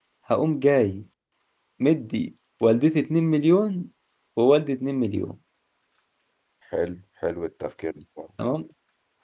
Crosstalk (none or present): none